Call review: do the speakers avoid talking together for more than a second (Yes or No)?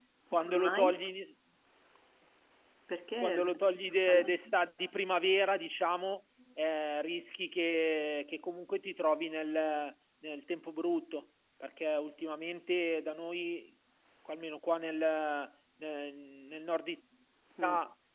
No